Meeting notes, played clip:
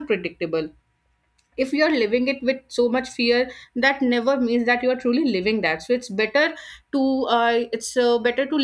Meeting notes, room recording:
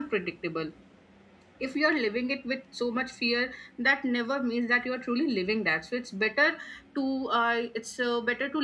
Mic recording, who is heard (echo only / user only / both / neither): echo only